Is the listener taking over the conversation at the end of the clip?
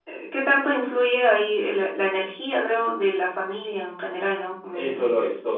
Yes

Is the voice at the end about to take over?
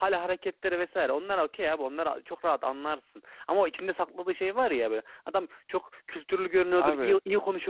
No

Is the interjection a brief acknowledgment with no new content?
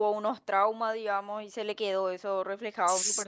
Yes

